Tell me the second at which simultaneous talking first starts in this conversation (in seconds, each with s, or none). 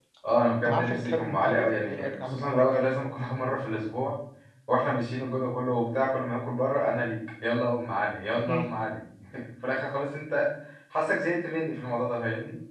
0.7 s